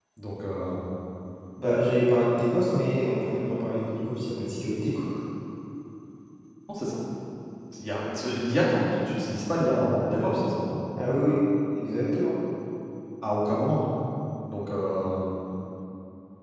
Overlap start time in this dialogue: none

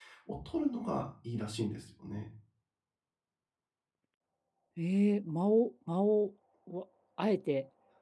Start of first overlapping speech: none

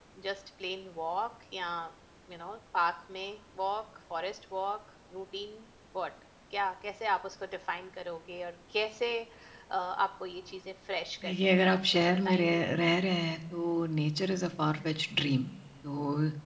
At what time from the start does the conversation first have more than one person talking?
11 s

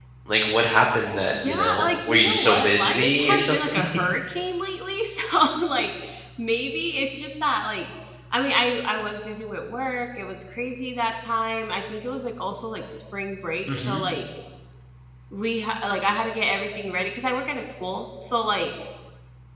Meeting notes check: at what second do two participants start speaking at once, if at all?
1 s

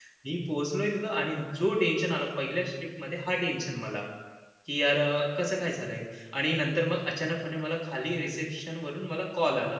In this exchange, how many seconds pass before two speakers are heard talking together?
none

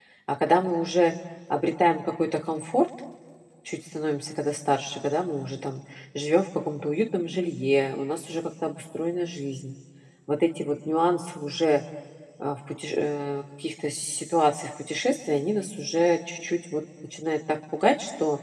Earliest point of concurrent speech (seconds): none

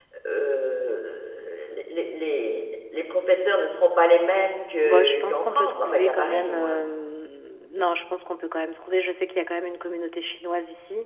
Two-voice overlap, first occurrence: 5 s

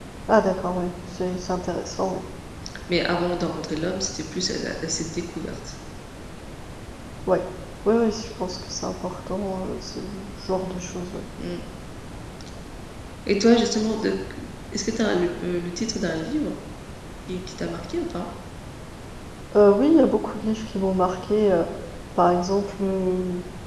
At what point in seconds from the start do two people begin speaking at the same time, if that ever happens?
none

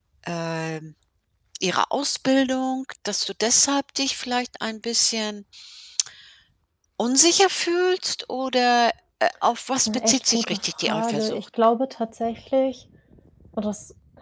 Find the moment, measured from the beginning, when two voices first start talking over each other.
10 s

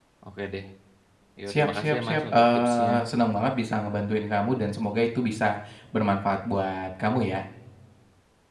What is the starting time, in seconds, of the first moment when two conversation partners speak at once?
1 s

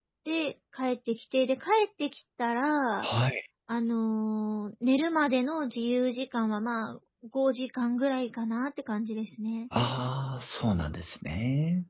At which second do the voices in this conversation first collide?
none

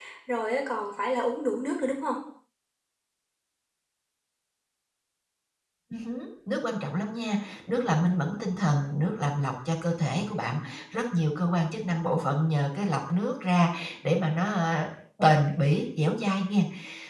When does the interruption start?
none

